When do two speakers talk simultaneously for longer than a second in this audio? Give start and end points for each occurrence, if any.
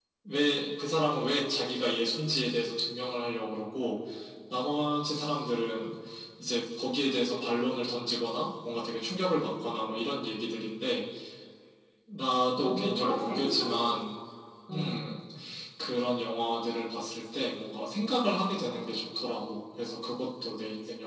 12.6-13.8

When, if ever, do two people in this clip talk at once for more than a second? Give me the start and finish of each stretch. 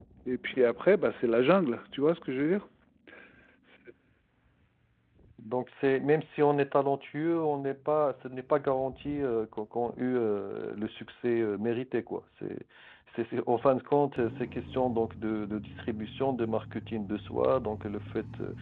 none

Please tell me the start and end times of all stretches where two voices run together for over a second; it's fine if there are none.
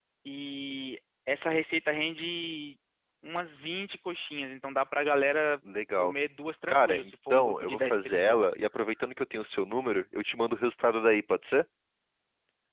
6.7-8.5

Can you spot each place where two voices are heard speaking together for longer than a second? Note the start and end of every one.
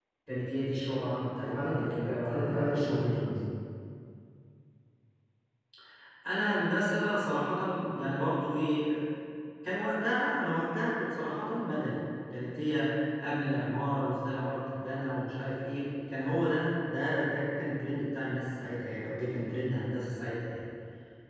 1.4-3.2

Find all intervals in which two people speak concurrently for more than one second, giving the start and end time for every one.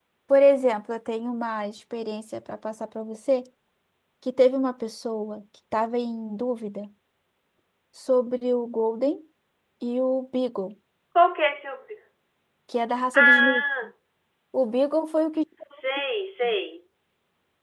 none

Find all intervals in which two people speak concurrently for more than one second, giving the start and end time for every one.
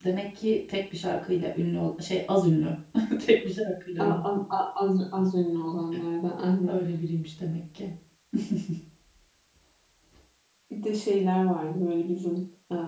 none

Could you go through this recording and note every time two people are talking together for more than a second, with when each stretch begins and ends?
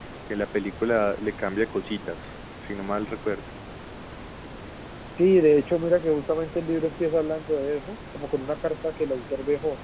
none

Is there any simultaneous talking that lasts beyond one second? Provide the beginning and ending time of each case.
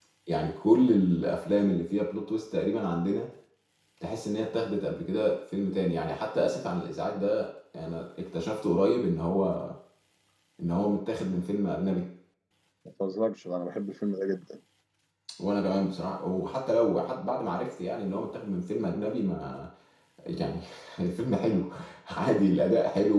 none

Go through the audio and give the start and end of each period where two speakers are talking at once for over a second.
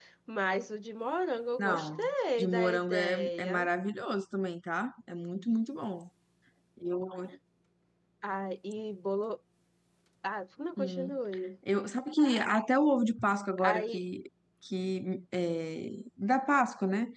2.4-3.7

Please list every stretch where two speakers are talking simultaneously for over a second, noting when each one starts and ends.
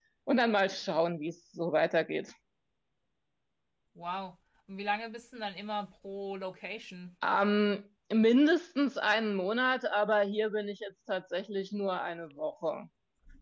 none

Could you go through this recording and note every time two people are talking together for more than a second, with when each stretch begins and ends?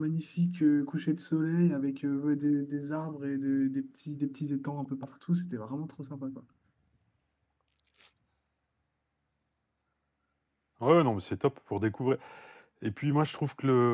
none

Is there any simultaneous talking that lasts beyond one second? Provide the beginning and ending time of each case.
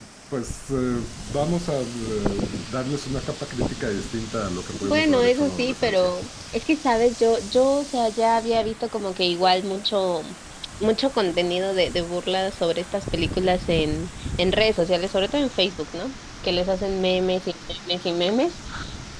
4.8-6.1

